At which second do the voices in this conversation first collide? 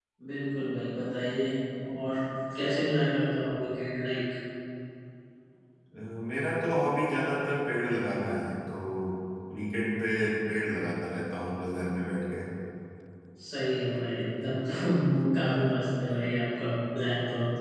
none

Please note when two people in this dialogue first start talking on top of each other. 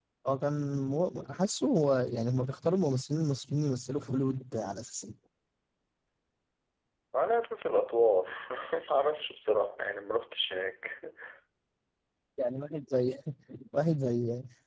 none

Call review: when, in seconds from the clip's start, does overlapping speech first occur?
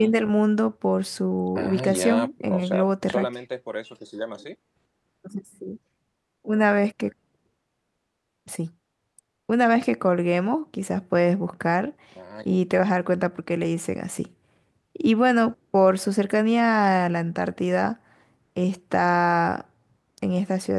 1.6 s

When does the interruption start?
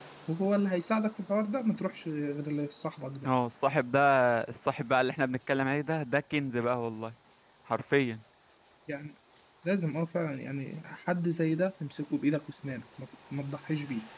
none

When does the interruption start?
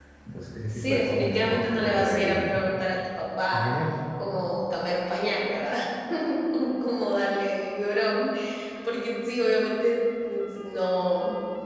0.7 s

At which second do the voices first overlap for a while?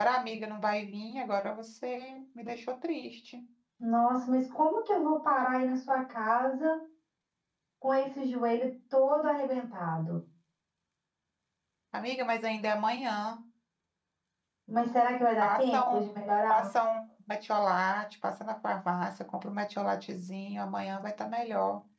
15.4 s

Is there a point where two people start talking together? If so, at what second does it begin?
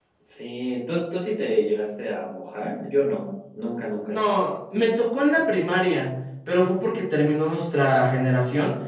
none

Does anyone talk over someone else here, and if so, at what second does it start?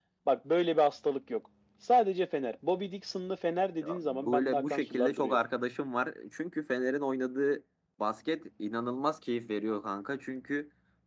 3.8 s

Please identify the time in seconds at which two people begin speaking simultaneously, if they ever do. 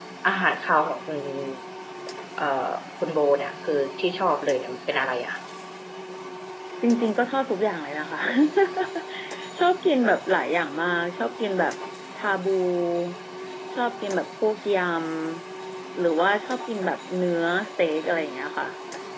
none

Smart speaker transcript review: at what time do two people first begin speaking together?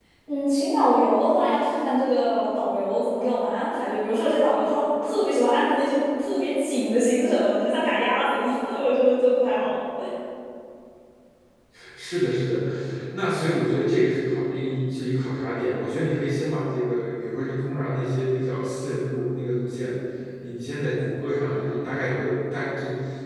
none

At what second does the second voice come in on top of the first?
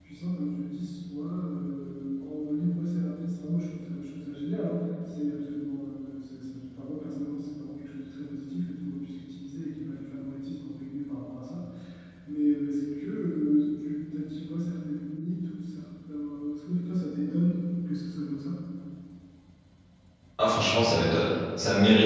none

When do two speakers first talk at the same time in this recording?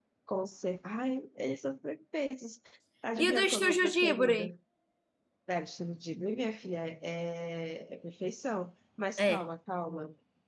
3.2 s

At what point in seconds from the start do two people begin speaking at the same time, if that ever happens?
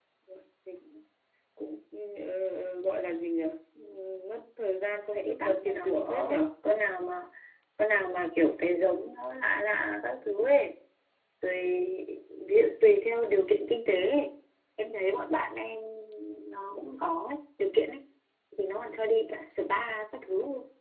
5.1 s

